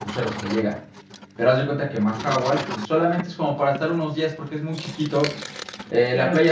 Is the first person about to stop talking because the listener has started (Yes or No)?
No